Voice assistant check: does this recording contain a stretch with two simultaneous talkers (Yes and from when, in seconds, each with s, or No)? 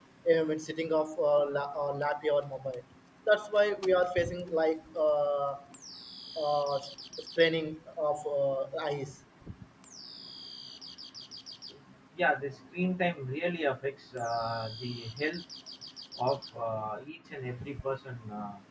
No